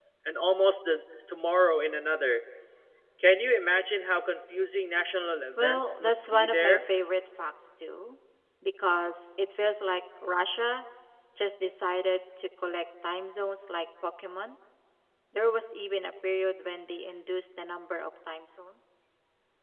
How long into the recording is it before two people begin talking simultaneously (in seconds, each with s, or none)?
5.6 s